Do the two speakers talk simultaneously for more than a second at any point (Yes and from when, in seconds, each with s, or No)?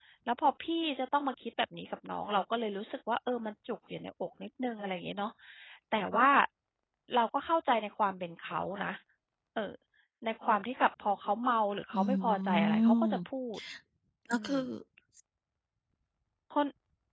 Yes, from 11.9 s